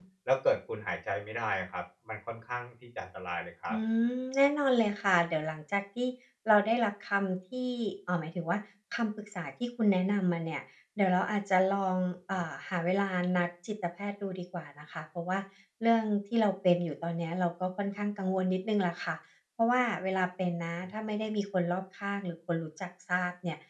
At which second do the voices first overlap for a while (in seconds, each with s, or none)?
none